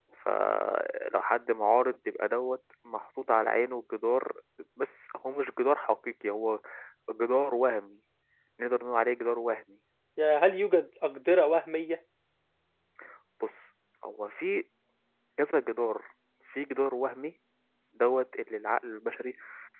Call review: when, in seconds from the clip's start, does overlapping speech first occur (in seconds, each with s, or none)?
none